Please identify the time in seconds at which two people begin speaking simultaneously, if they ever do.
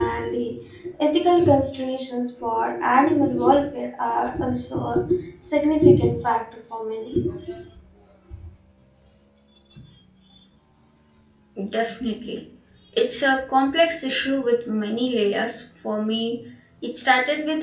none

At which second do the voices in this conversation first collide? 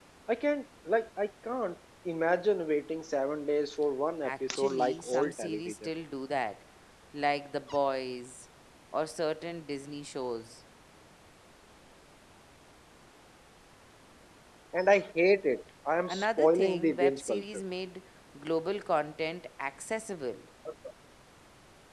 4 s

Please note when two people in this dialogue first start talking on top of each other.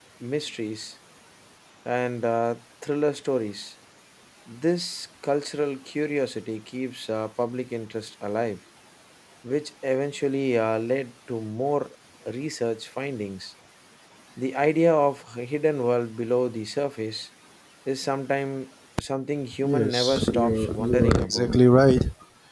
20 s

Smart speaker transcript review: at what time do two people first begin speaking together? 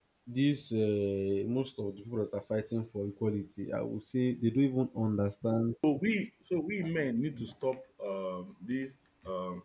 none

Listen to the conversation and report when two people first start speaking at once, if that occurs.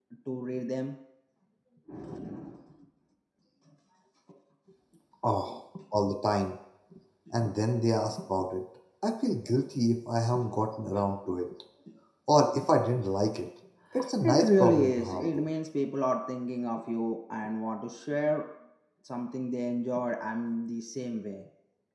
14 s

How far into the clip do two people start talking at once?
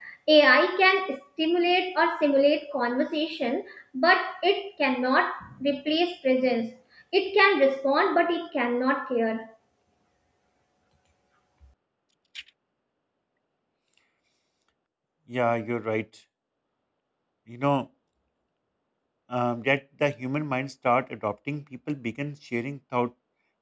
none

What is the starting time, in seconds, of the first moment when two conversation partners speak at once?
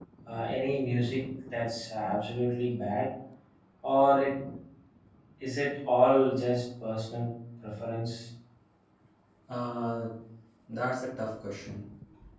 none

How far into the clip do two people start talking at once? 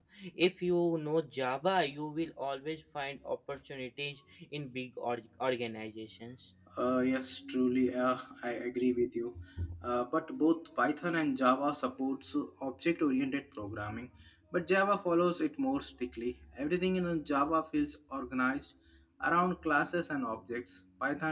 none

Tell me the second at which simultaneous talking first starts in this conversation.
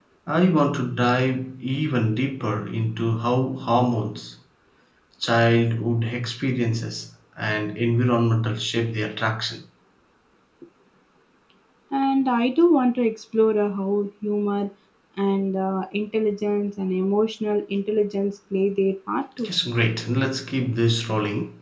none

